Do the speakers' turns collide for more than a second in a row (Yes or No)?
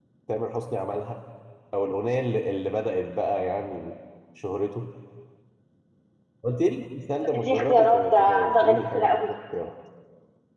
Yes